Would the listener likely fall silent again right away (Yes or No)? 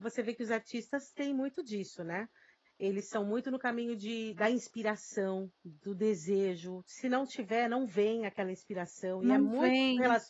Yes